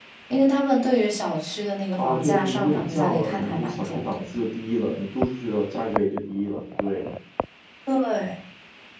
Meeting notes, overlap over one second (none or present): present